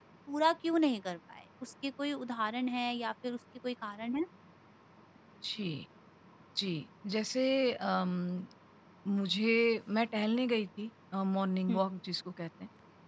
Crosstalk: none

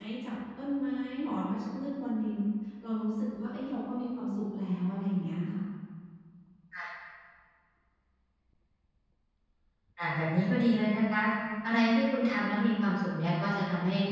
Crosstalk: none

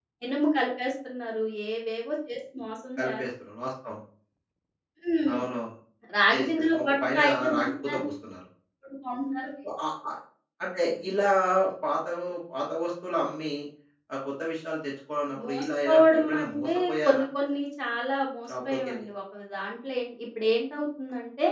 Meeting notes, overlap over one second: present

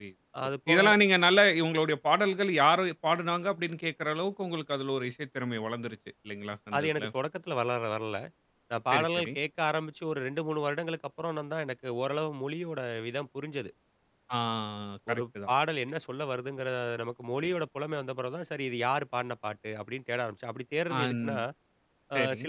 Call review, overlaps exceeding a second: none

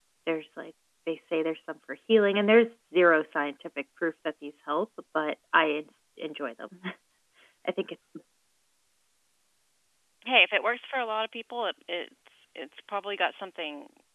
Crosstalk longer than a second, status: none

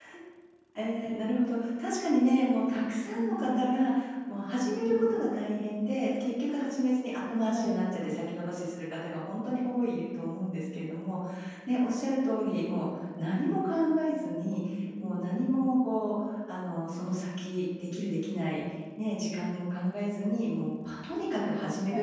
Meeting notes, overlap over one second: none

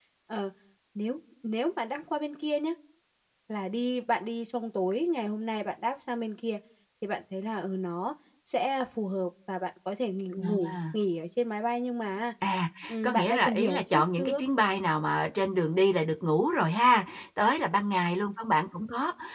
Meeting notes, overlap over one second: present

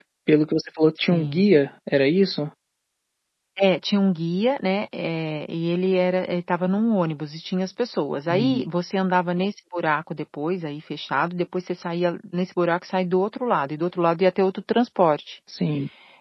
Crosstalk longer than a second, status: none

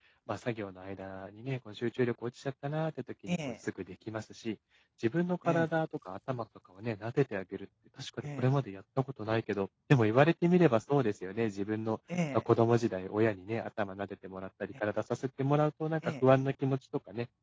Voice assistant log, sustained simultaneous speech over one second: none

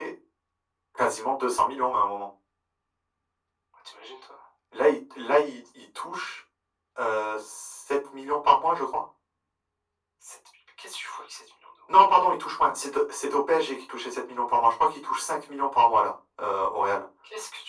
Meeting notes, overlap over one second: none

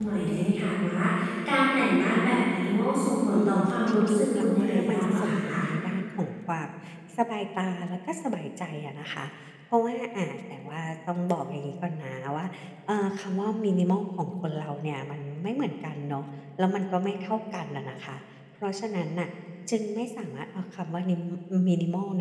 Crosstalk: present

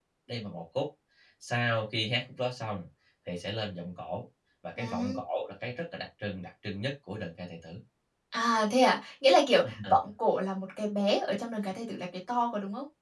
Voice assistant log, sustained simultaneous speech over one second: none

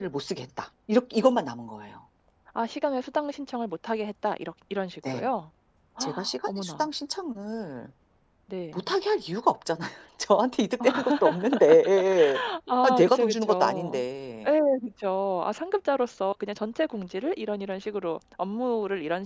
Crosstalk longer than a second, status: present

